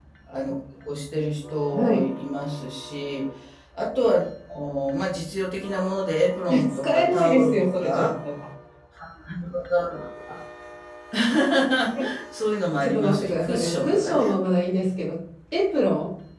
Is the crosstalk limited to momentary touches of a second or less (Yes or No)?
No